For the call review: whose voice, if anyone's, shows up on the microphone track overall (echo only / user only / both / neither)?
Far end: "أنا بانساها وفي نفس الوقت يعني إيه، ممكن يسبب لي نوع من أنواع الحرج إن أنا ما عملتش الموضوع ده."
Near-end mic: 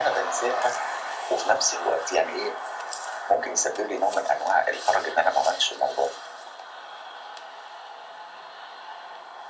echo only